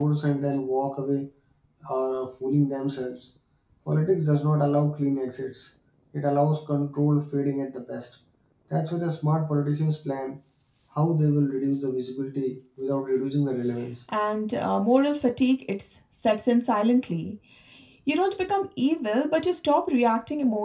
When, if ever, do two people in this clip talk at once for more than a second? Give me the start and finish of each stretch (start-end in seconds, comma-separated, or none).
none